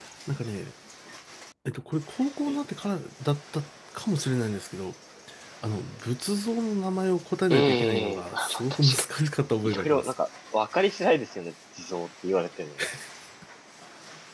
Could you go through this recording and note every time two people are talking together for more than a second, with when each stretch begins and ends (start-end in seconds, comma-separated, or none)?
7.5-8.8